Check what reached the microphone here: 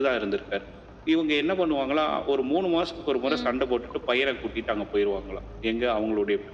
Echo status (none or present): present